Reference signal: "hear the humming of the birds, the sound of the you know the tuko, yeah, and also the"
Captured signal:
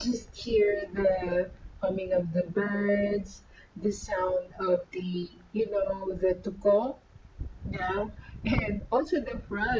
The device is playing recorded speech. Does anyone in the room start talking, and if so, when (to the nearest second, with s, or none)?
none